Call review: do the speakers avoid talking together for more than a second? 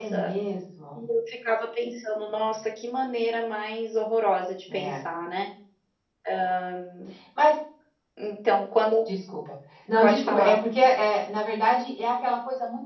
Yes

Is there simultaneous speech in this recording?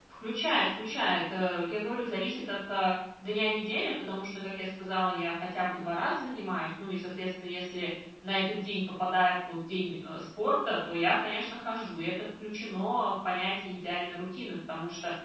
No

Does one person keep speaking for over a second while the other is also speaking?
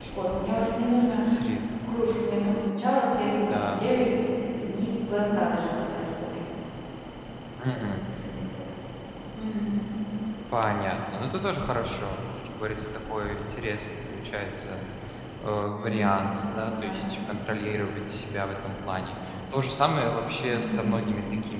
No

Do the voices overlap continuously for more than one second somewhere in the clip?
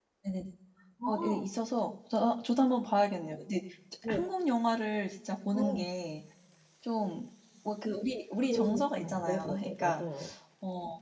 Yes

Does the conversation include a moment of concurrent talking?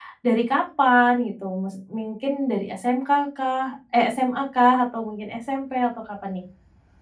No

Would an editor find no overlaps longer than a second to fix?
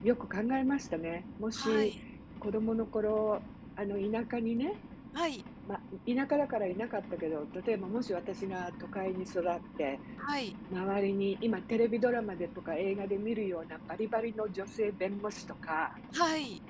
Yes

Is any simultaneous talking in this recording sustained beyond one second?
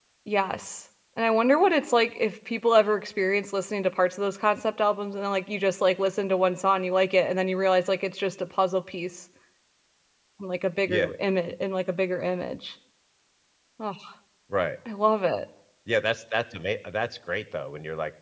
No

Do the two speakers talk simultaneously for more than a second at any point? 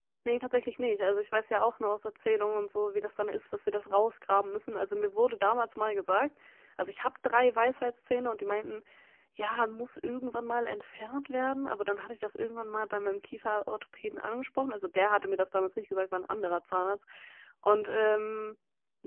No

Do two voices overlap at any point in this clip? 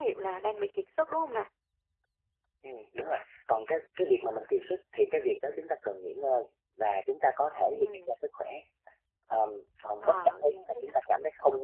Yes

